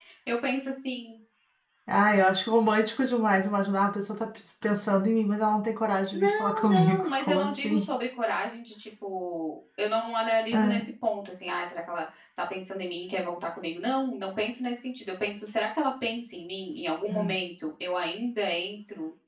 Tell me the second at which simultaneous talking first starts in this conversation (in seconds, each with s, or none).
6.1 s